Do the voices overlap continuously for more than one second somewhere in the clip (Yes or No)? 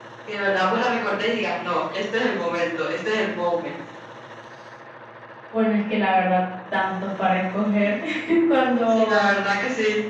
No